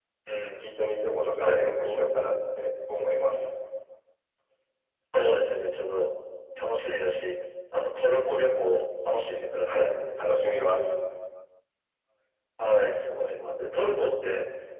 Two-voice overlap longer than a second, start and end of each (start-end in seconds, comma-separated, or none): none